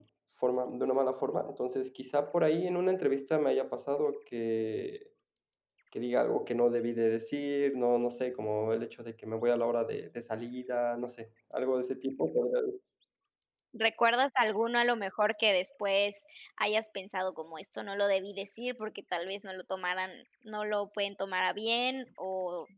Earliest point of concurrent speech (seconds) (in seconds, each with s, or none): none